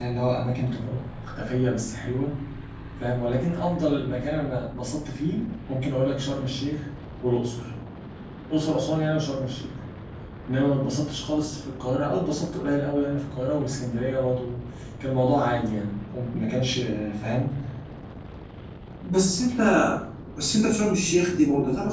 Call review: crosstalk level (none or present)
none